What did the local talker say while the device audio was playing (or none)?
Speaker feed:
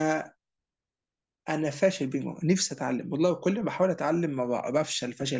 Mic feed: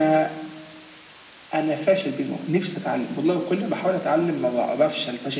none